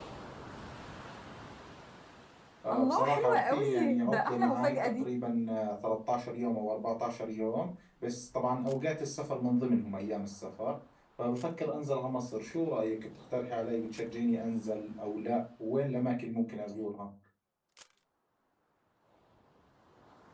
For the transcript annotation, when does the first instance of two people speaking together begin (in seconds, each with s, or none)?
2.7 s